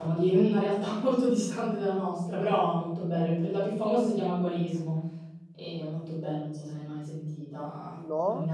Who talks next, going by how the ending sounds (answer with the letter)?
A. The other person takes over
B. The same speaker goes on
A